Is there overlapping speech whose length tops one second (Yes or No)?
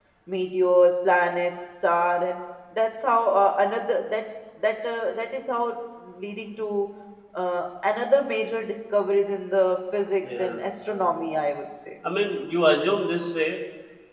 No